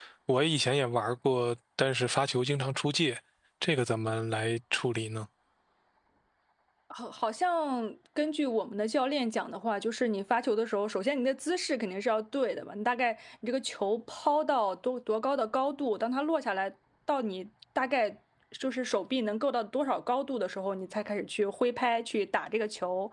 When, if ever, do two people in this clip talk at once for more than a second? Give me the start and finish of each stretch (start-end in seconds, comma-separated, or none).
none